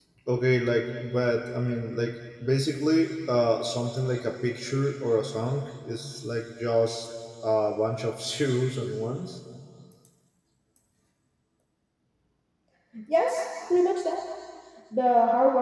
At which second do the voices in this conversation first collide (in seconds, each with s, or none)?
none